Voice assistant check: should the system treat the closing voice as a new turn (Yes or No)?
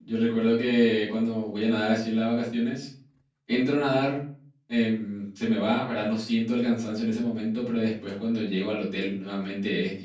No